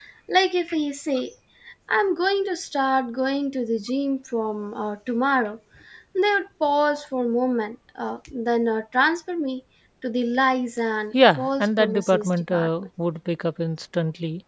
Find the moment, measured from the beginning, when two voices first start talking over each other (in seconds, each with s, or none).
11.4 s